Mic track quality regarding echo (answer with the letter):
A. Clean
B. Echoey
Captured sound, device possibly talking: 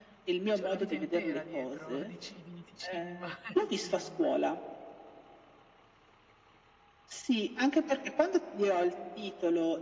B